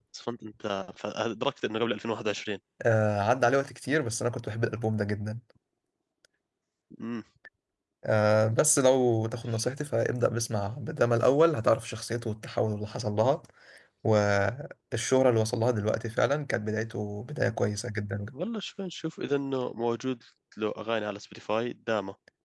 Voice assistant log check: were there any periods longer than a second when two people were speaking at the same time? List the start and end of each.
none

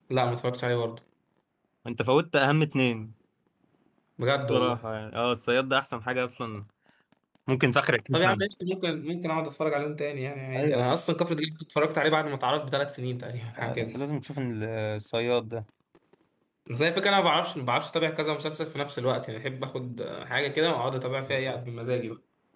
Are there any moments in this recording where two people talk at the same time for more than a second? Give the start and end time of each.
none

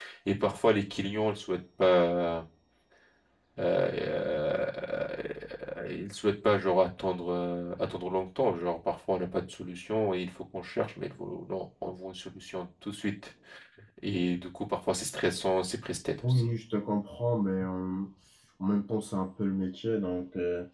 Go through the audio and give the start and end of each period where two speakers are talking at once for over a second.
none

